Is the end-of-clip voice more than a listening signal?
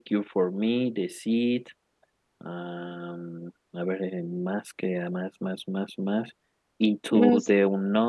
No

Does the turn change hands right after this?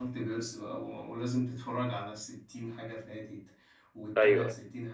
No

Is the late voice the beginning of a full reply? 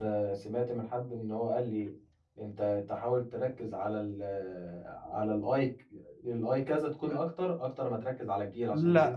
Yes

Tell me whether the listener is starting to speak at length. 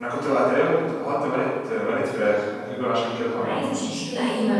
Yes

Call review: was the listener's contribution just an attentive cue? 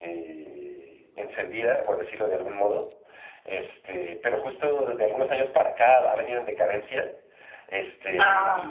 Yes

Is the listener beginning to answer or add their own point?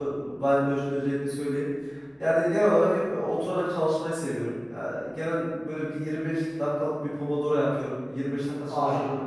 No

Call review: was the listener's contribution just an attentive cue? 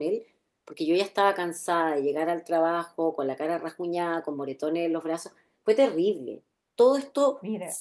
Yes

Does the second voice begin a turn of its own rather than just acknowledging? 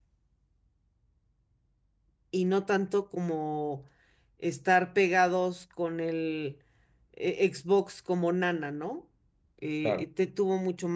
No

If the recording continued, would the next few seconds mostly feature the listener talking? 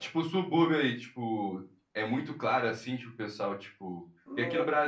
No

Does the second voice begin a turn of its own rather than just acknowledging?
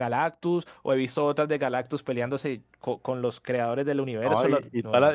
Yes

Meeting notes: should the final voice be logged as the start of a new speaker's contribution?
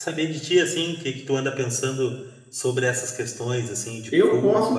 Yes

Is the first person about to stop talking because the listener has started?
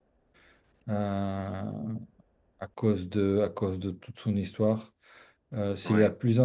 No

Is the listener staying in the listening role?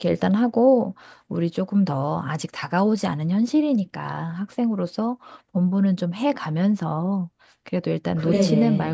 Yes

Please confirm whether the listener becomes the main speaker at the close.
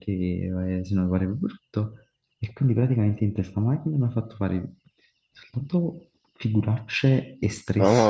No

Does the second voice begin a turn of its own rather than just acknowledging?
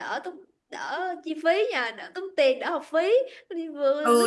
Yes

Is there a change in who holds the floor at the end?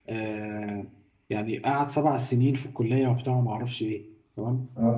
No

